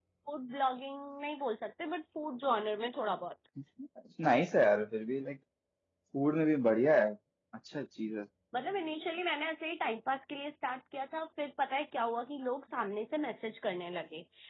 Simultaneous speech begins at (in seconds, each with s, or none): none